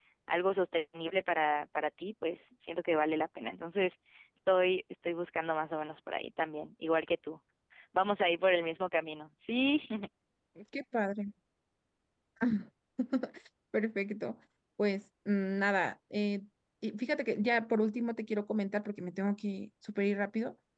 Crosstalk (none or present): none